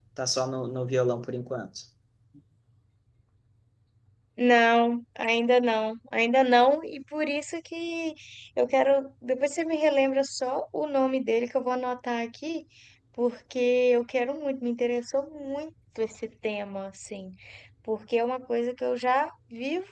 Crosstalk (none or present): none